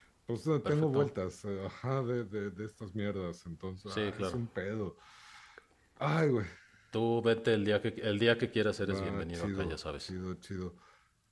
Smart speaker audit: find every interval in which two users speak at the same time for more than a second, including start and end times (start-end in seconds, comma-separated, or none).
8.8-10.1